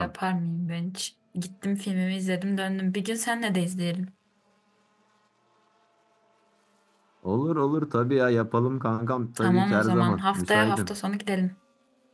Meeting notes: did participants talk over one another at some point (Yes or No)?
Yes